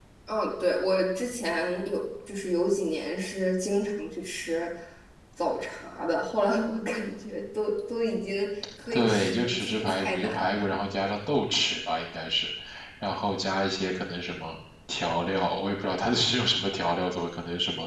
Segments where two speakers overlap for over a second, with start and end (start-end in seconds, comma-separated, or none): 8.9-10.7